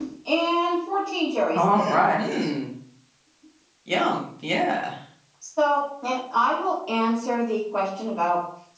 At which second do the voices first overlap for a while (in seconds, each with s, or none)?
none